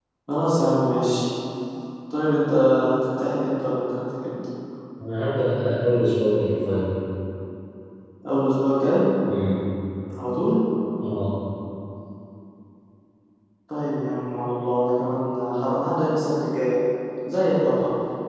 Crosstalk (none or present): none